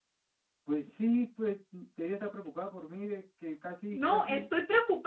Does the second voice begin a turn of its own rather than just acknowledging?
Yes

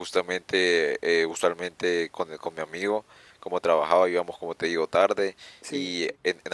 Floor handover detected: No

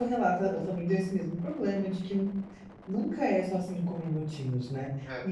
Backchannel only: Yes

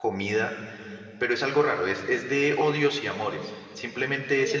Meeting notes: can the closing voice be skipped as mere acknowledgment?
Yes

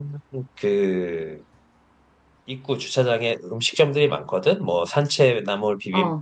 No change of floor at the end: Yes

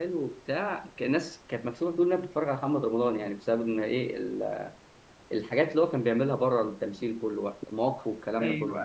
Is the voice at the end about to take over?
Yes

